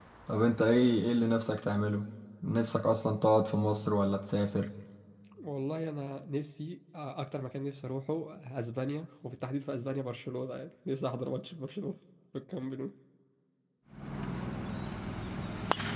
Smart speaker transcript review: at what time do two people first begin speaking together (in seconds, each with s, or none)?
none